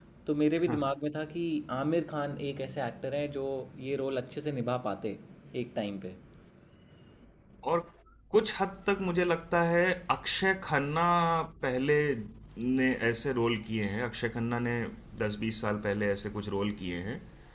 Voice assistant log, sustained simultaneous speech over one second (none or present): none